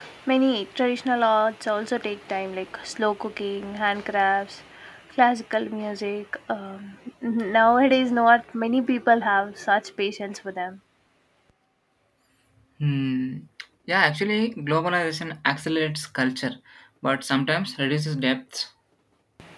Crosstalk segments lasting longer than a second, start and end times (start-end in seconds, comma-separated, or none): none